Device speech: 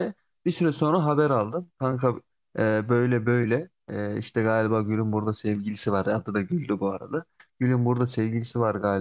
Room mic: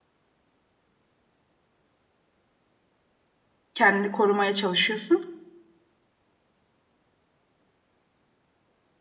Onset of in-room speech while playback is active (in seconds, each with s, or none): 3.7 s